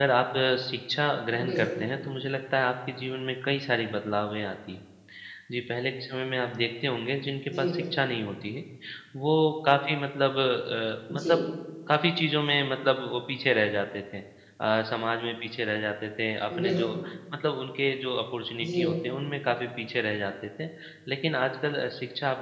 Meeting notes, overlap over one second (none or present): none